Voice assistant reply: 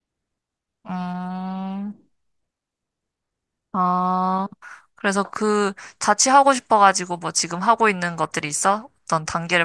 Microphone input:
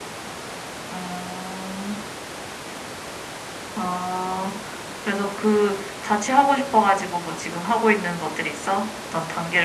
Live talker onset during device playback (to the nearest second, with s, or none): none